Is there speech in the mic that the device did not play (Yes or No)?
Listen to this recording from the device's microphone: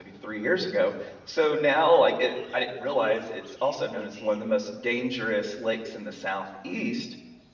Yes